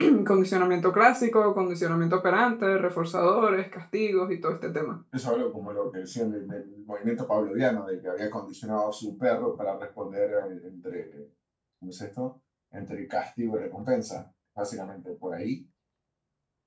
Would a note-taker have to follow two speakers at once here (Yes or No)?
No